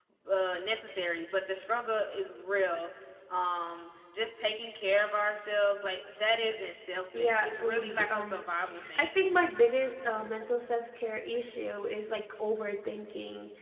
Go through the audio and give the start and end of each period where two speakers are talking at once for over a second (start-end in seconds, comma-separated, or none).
7.2-8.4